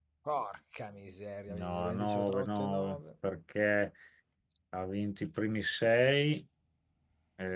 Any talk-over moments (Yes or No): Yes